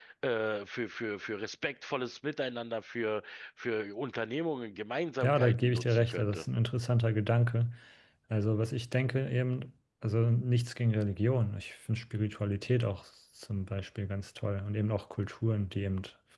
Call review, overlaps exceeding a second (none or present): present